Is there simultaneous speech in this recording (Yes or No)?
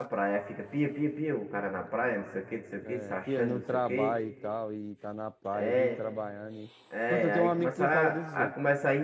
Yes